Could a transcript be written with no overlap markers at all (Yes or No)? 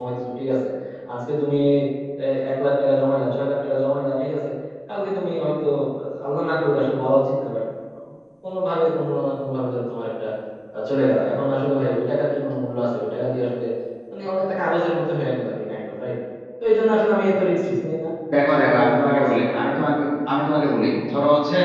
No